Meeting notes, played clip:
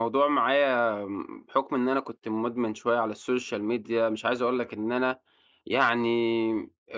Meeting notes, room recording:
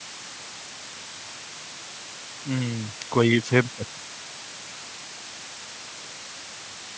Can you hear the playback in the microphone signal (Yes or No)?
No